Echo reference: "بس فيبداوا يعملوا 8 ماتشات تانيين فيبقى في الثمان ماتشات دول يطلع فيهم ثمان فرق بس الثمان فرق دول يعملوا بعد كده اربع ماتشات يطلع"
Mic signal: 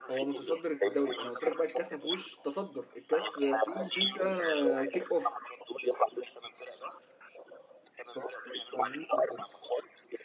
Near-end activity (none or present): present